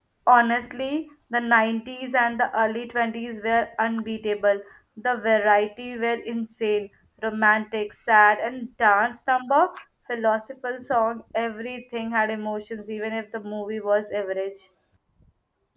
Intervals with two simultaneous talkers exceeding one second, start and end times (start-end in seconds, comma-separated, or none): none